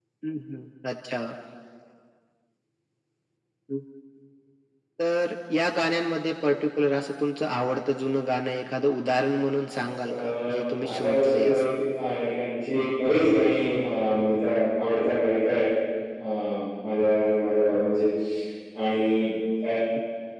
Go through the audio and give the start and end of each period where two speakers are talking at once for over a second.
9.6-11.7

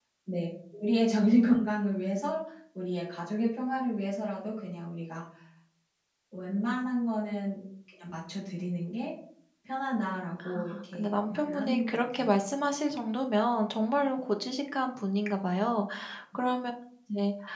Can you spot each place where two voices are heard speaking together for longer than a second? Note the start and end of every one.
10.4-12.2

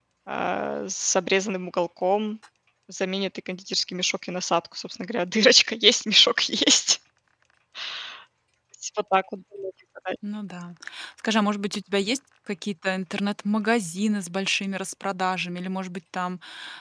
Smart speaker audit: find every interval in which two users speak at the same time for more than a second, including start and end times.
none

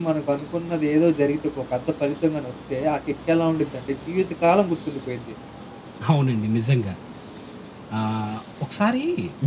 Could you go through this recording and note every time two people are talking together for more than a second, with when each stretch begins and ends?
none

